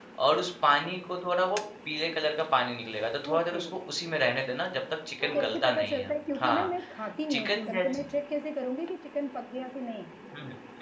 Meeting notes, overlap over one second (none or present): present